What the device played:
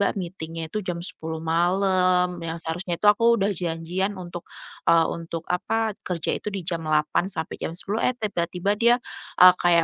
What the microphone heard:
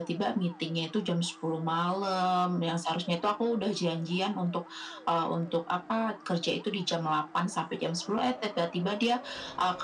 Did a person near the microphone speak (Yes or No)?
No